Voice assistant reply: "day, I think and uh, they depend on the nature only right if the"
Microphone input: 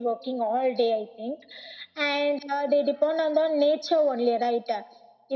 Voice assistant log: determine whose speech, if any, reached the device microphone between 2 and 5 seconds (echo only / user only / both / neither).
echo only